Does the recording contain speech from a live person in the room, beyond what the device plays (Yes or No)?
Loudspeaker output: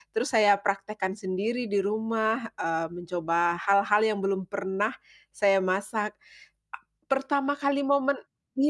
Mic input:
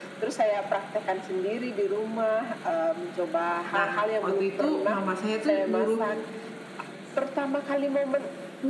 Yes